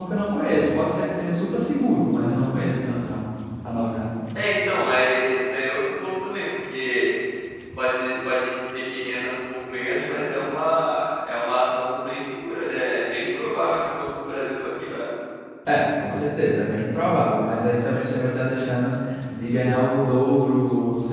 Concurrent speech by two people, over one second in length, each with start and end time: none

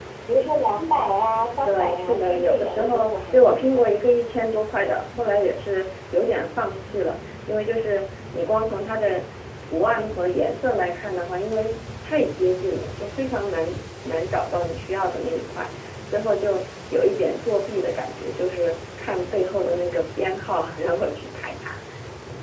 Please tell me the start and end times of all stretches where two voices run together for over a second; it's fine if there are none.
1.6-3.9

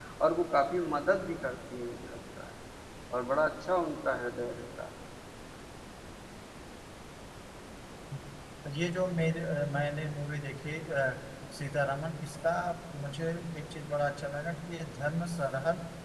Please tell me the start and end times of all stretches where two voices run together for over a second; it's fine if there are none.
none

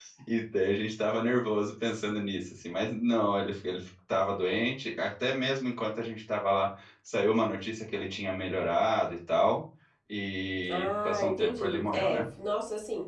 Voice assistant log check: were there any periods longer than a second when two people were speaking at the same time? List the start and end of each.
10.7-12.2

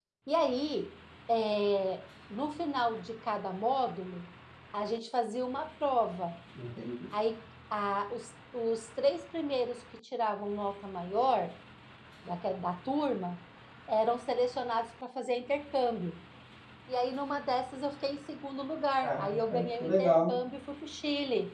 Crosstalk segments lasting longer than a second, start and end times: 19.0-20.4

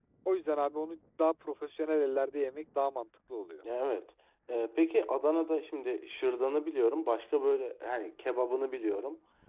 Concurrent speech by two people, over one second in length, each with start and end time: none

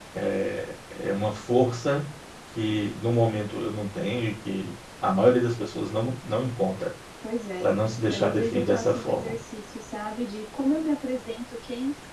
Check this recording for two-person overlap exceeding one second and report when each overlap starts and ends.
8.1-9.4

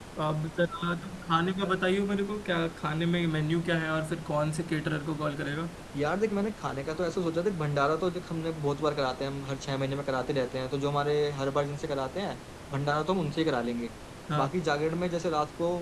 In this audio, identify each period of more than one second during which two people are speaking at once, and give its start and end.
none

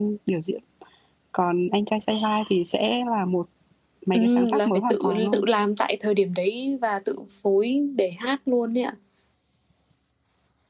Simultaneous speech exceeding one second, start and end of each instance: 4.1-5.4

